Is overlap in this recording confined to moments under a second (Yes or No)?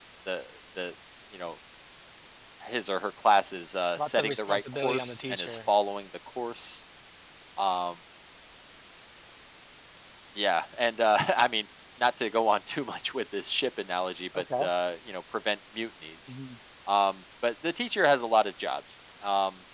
No